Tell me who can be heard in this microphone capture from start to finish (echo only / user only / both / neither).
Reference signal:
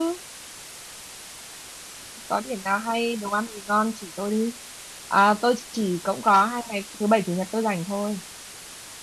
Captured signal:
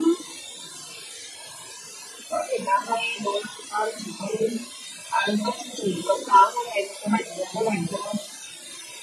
echo only